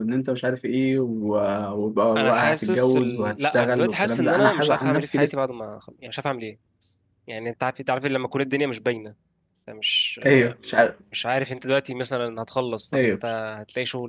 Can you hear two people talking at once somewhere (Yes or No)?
Yes